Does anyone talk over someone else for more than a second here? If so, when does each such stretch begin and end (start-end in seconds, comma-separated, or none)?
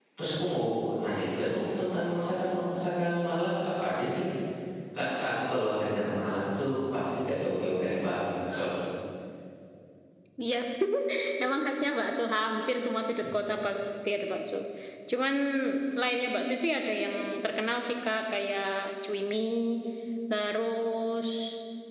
none